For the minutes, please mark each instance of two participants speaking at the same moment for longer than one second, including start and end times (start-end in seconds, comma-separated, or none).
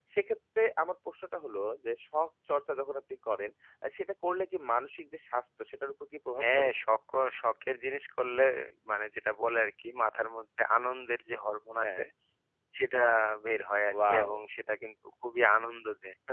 none